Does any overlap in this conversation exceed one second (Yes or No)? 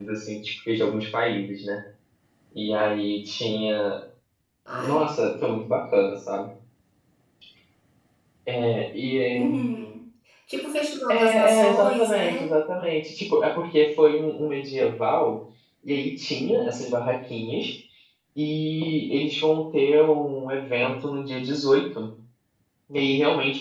Yes